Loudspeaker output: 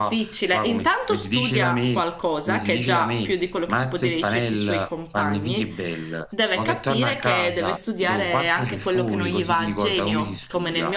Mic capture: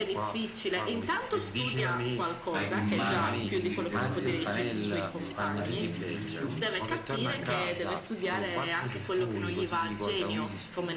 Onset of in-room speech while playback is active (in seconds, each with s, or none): 2.5 s